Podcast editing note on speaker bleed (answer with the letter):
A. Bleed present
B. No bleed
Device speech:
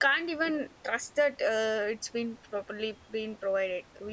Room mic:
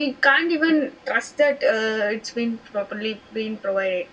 A